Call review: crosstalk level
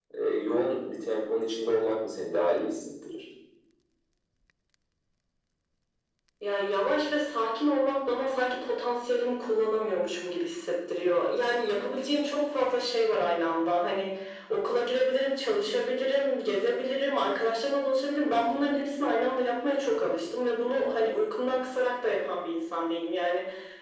none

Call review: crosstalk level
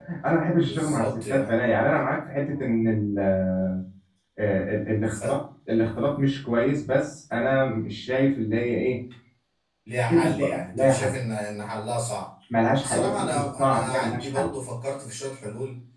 present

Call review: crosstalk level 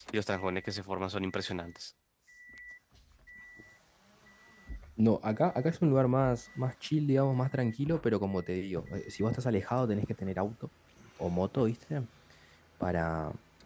none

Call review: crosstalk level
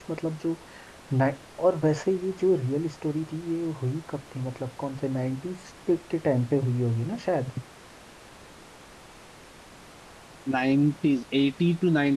none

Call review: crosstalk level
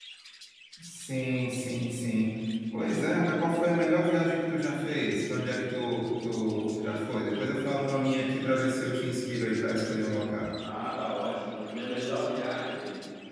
none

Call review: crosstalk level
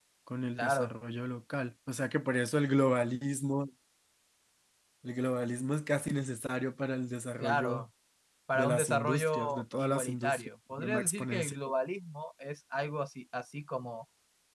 present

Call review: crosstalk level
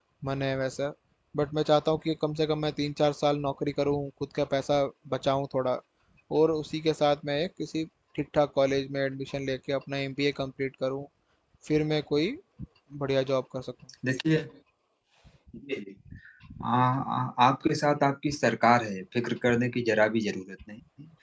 none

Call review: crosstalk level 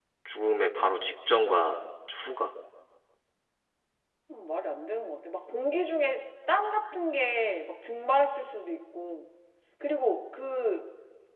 none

